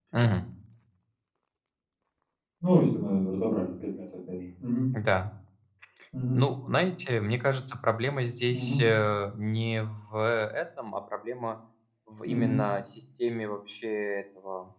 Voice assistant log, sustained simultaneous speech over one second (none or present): none